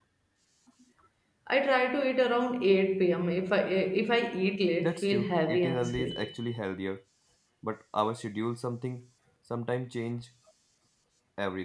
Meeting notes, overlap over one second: present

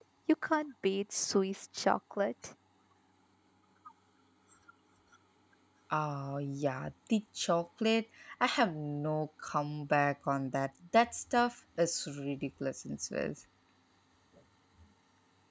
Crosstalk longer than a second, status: none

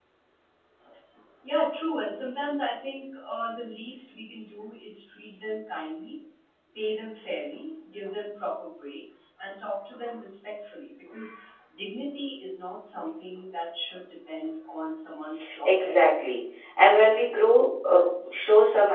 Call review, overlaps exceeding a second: none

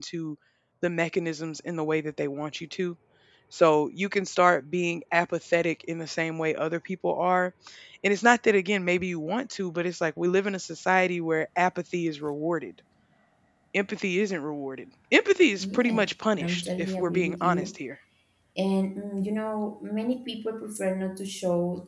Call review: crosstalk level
present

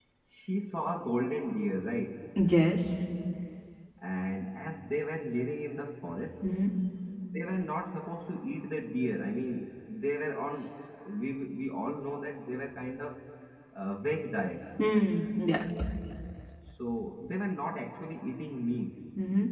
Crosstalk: none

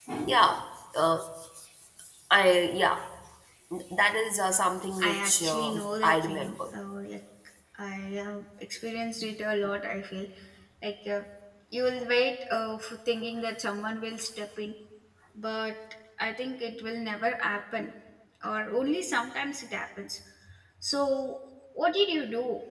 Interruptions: present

